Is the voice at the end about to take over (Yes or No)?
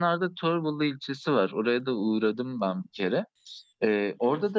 No